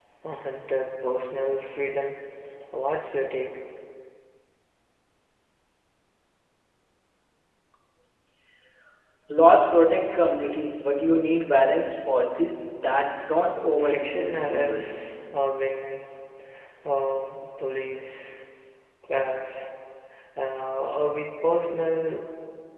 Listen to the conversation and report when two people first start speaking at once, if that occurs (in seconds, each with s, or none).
13.8 s